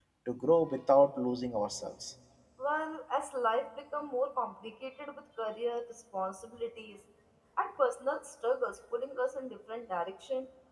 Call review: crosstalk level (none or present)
none